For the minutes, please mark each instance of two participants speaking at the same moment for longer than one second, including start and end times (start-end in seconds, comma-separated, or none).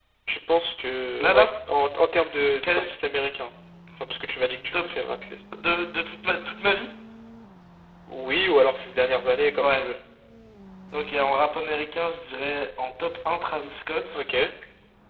none